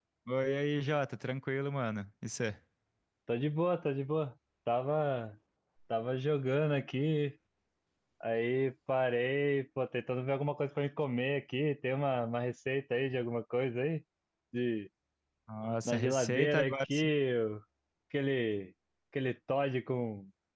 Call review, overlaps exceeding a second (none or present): present